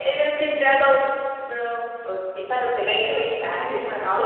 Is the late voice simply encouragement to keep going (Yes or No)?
No